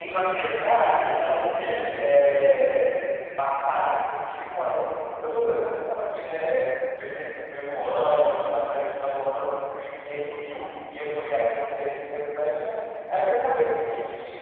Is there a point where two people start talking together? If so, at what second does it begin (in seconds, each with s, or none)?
0.6 s